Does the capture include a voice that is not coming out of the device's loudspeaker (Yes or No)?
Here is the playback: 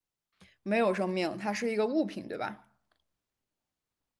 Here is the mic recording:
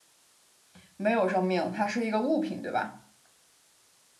No